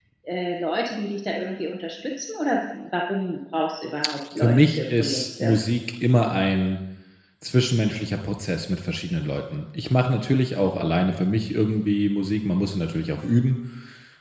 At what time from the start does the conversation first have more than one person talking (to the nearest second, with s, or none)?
4 s